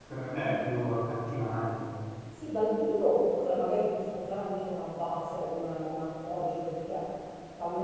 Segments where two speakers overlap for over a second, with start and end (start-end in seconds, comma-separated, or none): none